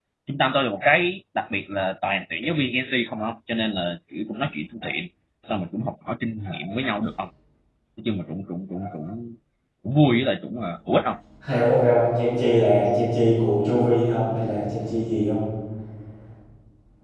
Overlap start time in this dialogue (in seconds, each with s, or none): none